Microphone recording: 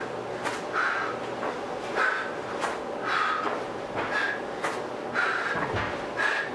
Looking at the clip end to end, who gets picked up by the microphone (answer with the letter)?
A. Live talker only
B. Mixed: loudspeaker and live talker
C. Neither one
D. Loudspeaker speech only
C